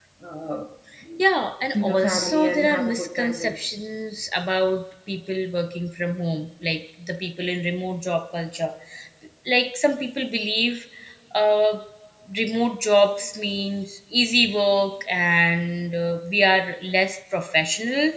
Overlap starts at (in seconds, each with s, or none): 1.7 s